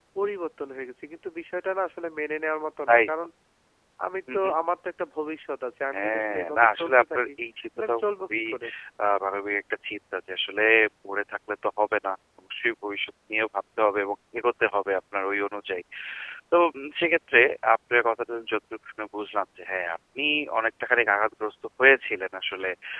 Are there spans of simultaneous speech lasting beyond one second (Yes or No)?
Yes